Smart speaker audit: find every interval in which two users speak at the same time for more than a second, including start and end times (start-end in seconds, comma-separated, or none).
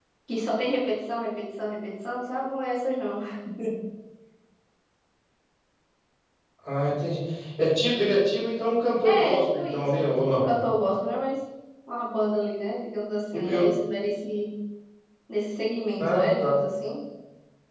9.1-10.5